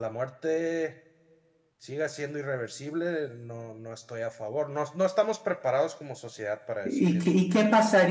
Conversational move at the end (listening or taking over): taking over